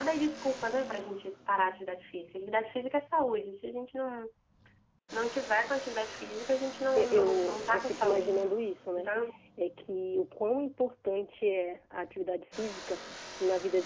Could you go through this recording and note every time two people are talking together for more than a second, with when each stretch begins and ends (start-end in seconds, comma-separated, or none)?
7.0-8.3